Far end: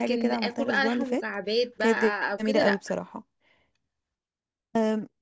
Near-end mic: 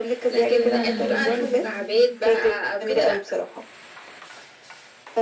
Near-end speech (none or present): present